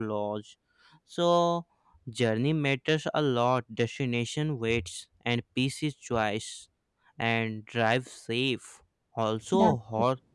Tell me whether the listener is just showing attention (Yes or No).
Yes